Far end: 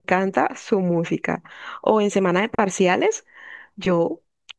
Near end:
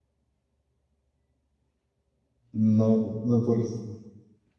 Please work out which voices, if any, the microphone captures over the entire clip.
user only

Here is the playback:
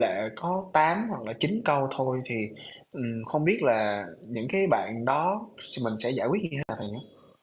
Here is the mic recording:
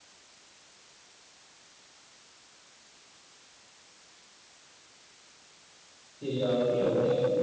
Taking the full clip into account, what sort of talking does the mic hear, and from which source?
user only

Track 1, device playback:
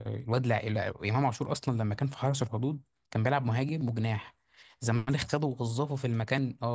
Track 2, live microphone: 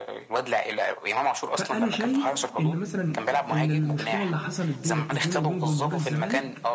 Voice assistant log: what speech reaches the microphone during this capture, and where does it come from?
both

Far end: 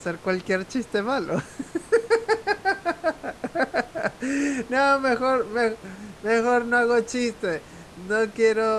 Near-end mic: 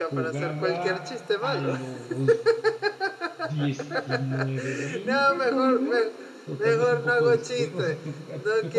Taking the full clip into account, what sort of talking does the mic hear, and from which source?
both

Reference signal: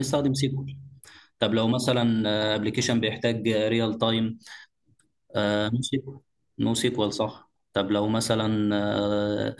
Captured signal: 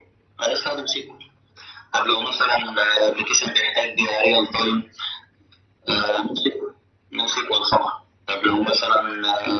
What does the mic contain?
echo only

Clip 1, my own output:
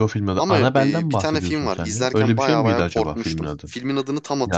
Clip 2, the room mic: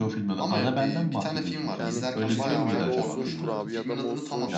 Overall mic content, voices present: both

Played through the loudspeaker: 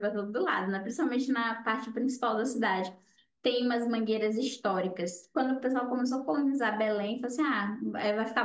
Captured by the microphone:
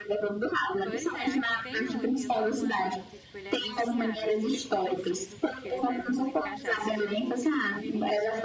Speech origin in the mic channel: both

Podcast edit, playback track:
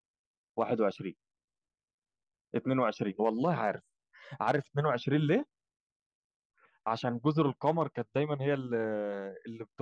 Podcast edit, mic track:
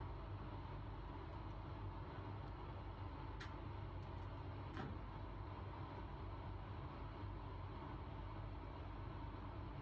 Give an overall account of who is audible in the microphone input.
neither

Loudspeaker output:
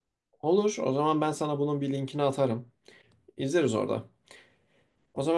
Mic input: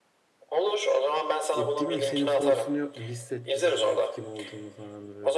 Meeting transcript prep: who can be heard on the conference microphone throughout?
both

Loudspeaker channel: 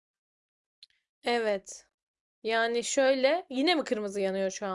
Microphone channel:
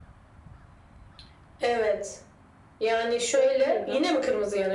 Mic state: both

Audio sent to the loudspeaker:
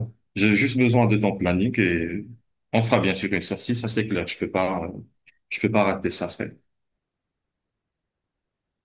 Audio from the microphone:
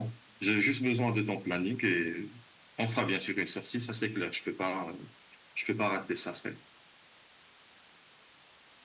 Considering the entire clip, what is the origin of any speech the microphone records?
echo only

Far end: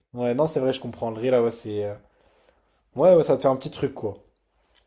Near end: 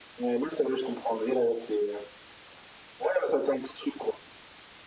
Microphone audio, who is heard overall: echo only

